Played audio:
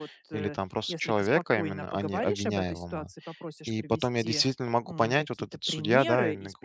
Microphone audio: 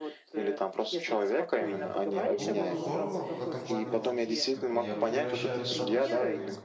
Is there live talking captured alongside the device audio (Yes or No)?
Yes